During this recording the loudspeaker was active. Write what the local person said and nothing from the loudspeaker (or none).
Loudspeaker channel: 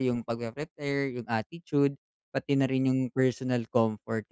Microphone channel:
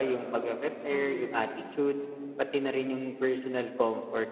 Mm.